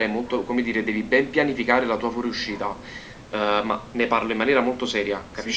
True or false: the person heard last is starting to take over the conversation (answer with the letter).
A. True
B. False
A